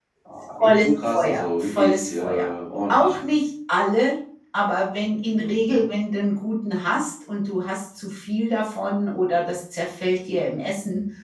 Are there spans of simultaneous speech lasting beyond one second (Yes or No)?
Yes